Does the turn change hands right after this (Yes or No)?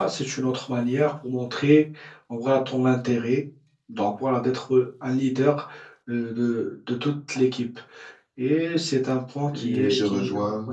Yes